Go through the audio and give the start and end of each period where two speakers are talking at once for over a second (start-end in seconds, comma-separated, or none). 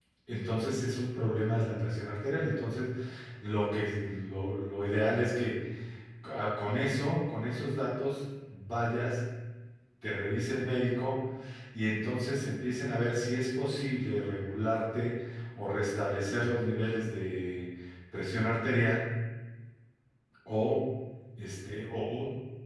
none